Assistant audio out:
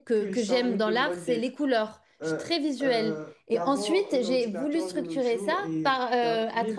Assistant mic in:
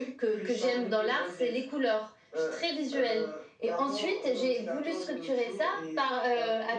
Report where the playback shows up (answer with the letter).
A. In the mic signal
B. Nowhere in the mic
A